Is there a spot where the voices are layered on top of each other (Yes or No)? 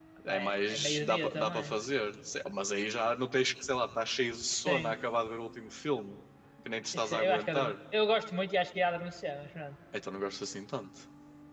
Yes